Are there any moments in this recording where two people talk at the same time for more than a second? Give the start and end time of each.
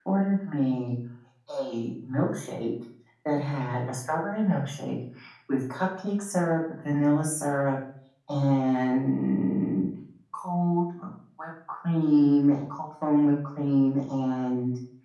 none

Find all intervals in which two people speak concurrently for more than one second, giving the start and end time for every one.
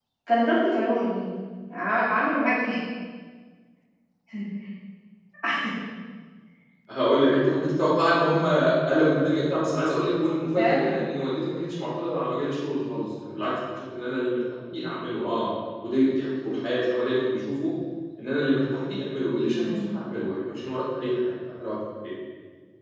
none

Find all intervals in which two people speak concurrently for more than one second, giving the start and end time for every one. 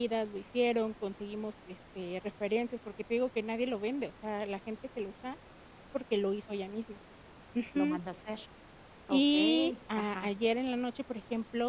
9.1-10.3

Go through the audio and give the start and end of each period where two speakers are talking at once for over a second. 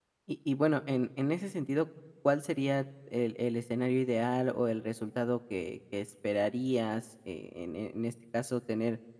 none

